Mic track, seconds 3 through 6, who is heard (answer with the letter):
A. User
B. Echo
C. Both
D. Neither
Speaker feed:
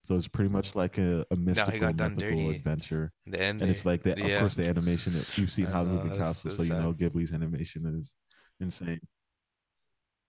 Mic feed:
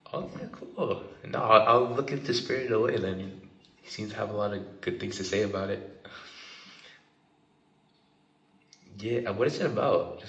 A